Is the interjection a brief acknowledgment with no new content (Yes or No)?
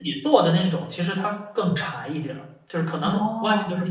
Yes